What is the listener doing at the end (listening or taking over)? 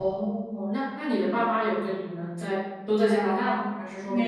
taking over